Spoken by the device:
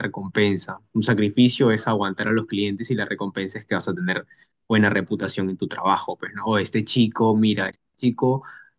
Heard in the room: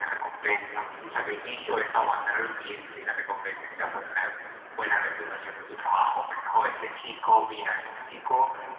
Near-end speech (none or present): none